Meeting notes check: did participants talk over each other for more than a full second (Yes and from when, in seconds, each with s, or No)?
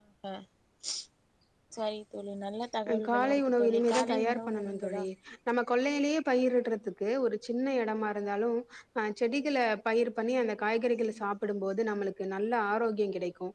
Yes, from 2.9 s